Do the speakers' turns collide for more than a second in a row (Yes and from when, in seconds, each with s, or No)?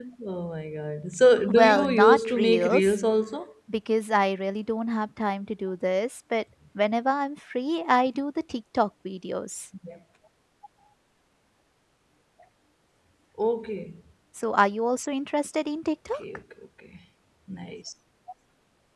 Yes, from 1.5 s